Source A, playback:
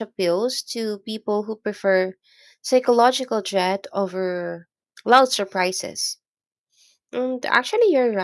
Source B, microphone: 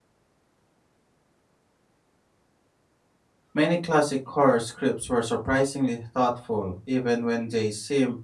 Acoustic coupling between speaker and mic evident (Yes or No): No